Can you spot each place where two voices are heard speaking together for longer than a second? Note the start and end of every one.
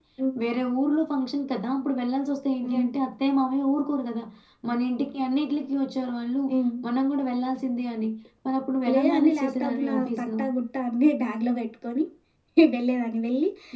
8.9-10.3

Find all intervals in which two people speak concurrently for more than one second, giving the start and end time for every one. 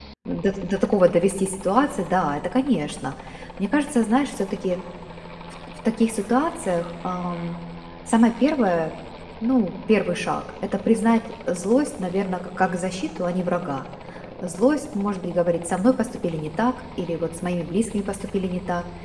none

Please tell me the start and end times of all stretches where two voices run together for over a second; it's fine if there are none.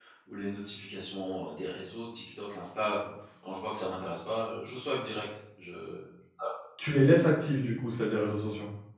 none

